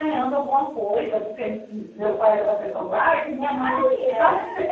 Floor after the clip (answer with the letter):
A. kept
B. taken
A